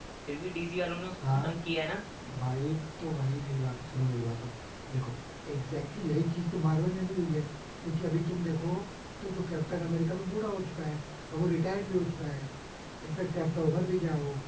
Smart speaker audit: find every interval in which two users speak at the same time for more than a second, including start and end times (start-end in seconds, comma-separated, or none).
none